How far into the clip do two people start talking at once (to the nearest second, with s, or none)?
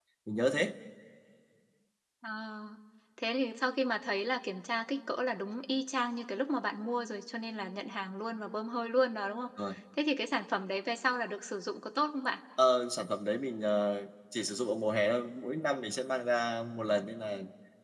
none